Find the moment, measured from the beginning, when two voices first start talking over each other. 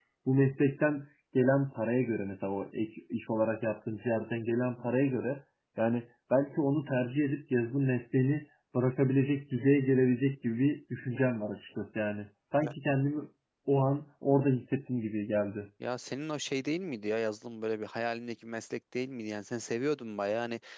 none

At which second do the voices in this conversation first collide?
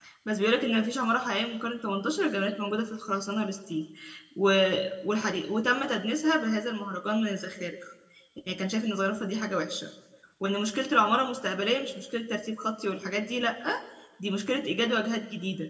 none

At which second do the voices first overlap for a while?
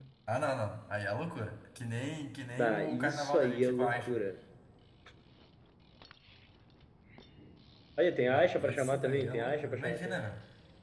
2.6 s

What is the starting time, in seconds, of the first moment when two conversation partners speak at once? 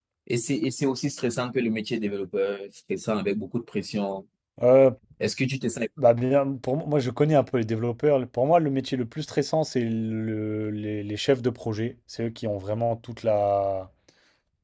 none

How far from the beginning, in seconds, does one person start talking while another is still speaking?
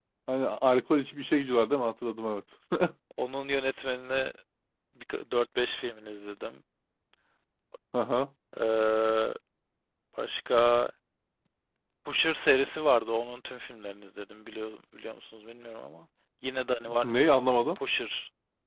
none

